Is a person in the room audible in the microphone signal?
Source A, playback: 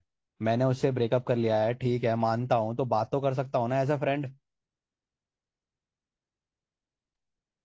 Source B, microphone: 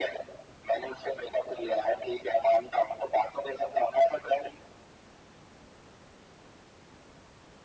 No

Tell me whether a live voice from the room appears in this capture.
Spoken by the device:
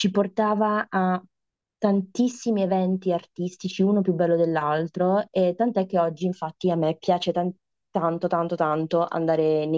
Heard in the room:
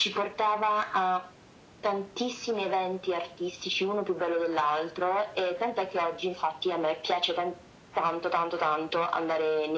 No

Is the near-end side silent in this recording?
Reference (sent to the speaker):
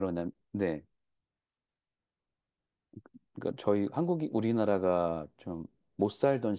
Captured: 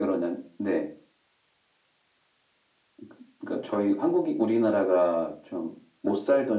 Yes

